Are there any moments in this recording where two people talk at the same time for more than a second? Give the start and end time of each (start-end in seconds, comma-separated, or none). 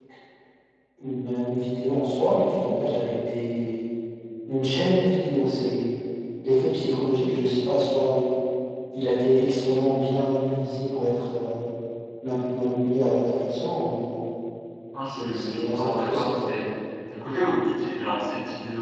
15.0-16.5